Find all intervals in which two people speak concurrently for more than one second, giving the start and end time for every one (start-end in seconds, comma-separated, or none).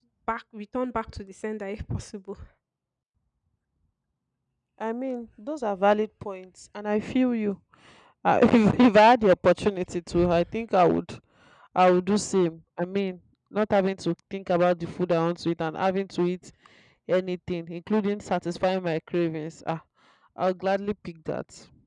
none